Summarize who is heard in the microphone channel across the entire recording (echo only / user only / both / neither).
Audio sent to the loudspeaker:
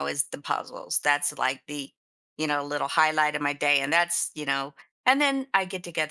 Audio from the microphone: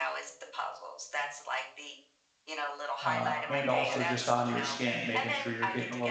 both